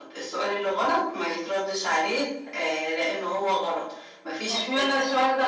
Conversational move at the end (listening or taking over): taking over